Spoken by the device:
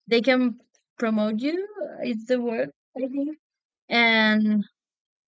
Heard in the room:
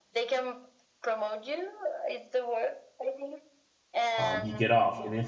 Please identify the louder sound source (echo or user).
user